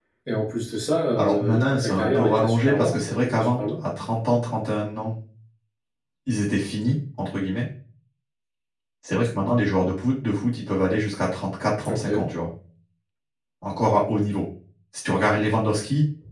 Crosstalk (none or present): present